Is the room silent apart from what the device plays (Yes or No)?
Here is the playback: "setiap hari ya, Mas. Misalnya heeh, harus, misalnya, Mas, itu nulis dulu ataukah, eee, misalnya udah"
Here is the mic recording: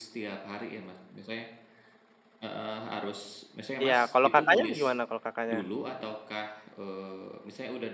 No